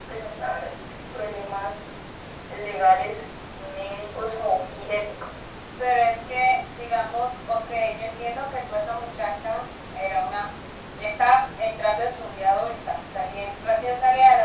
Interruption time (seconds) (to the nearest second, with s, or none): none